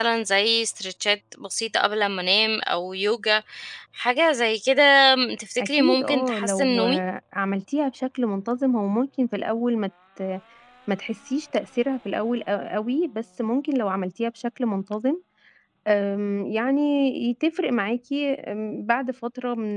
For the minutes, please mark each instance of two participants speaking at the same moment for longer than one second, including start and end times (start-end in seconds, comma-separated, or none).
5.6-6.8